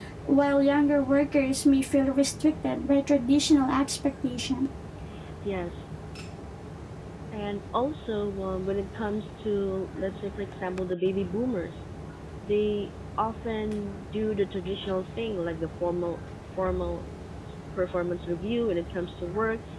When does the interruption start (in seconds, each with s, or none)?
none